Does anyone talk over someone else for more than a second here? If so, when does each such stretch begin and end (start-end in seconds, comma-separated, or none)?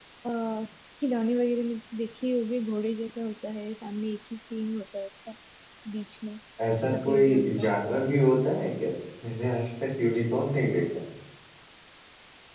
6.9-8.1